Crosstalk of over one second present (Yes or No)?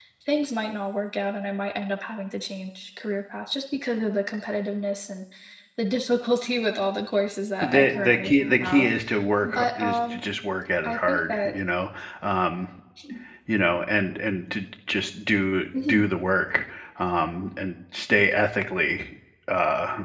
Yes